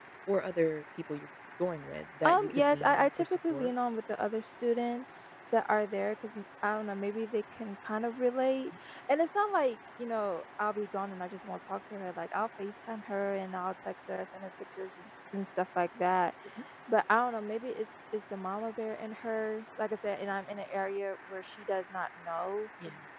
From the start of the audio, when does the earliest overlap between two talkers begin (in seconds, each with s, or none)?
2.2 s